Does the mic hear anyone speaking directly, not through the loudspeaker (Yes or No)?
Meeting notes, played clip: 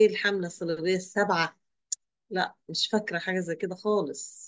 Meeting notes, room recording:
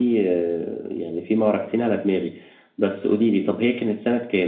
Yes